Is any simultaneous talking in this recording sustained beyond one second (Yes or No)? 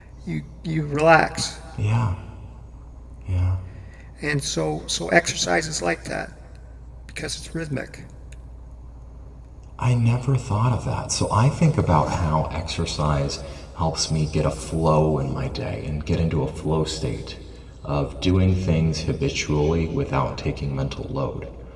No